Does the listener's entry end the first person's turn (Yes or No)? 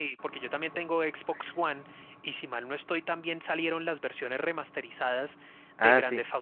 No